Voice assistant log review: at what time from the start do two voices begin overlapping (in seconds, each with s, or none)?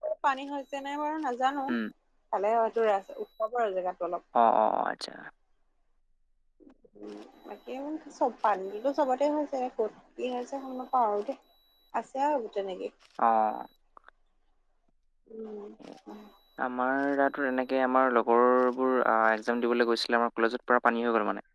none